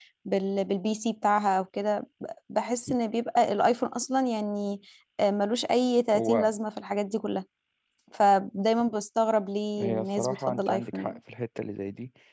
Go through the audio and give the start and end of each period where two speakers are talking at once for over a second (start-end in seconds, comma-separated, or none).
9.8-11.2